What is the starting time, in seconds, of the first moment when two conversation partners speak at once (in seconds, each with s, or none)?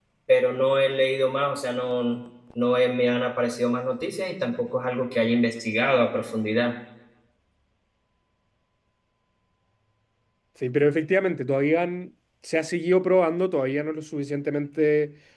none